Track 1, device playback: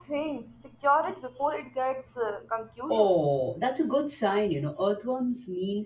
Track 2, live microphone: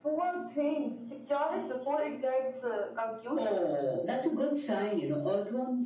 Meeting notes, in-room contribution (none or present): none